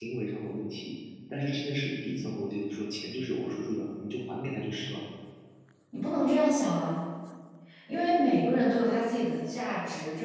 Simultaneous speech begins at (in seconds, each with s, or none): none